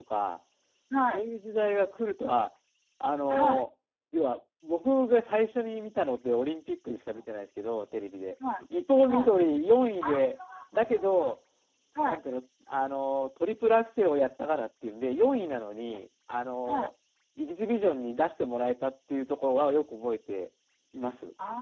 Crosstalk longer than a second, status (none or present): none